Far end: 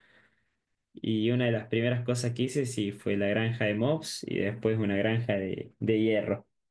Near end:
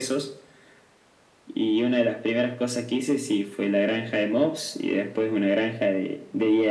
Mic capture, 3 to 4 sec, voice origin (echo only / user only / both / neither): echo only